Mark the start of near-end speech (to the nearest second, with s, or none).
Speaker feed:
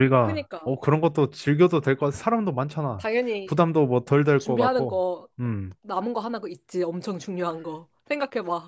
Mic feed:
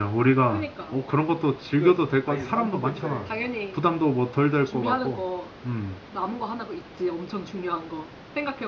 2 s